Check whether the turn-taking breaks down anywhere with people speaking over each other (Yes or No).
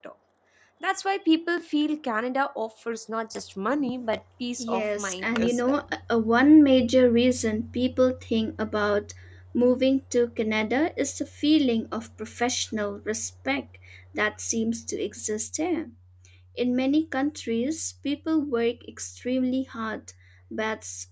Yes